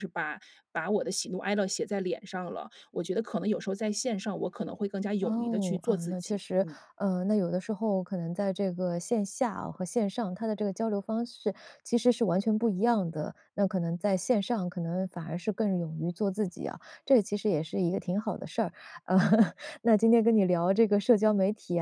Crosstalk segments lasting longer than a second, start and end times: 5.2-6.7

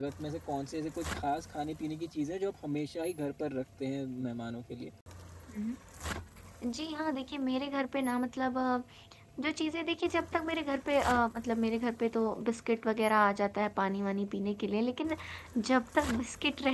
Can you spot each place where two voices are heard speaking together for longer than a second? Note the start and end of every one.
none

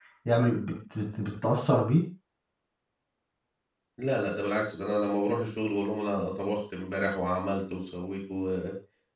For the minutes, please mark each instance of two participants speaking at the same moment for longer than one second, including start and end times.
none

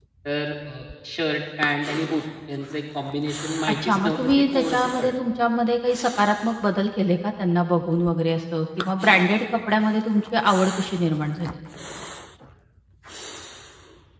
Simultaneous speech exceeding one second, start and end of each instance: 3.7-5.1

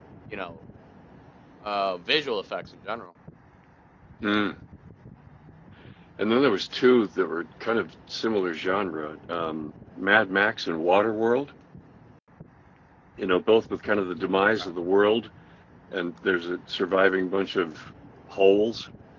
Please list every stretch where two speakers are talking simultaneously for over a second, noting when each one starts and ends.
none

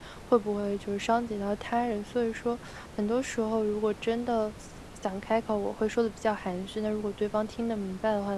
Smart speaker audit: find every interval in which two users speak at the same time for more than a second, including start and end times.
none

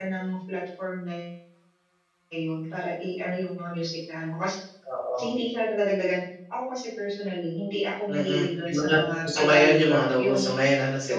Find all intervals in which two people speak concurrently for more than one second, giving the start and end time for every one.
8.1-10.5

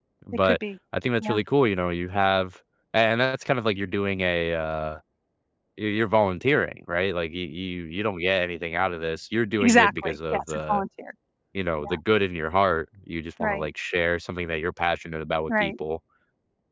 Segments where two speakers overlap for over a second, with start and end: 9.6-10.8

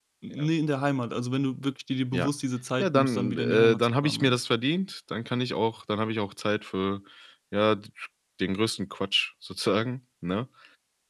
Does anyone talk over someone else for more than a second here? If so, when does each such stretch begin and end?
2.8-4.4

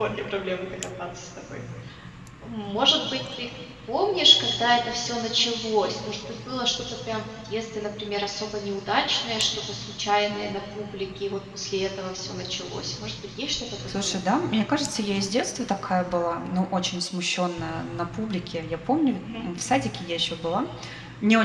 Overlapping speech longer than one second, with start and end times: none

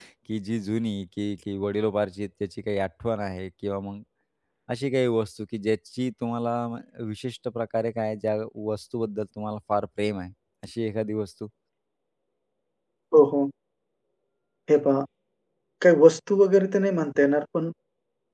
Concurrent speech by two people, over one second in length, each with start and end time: none

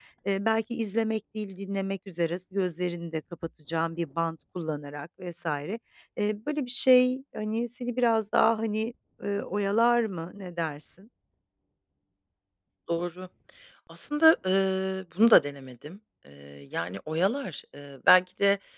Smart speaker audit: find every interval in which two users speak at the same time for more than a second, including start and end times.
none

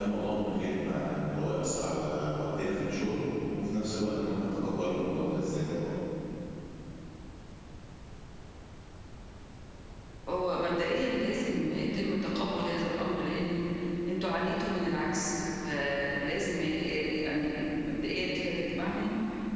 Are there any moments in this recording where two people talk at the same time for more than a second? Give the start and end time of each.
none

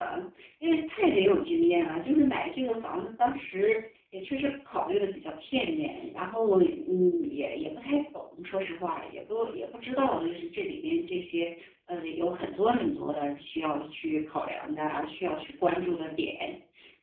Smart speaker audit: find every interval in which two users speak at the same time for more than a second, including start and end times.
none

